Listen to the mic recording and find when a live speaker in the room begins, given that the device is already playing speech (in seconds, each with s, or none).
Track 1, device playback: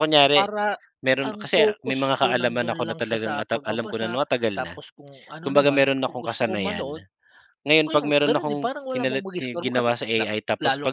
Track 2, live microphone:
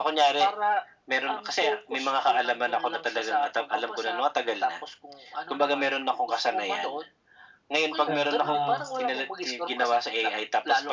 8.0 s